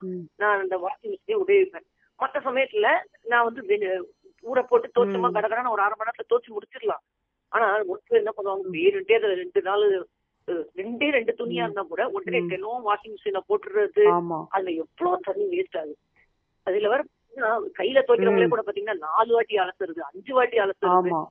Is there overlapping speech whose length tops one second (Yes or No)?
No